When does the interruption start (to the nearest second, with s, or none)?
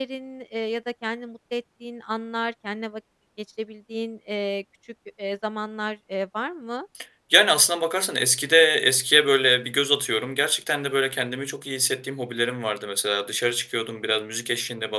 none